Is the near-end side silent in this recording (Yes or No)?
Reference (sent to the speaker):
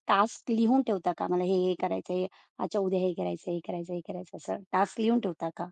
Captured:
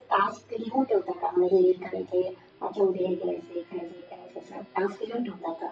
Yes